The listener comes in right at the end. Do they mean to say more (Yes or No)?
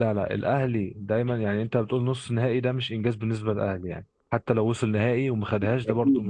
Yes